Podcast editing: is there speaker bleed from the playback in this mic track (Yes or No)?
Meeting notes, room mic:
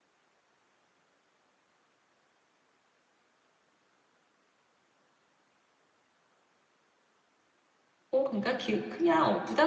No